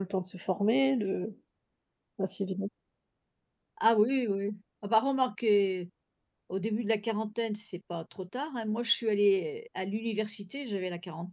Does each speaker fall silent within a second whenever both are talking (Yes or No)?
Yes